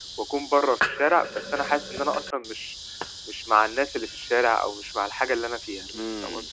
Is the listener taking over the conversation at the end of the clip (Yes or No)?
Yes